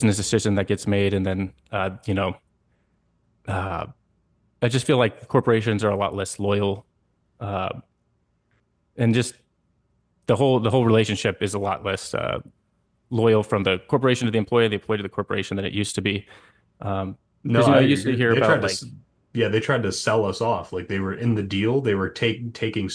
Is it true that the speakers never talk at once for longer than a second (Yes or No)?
No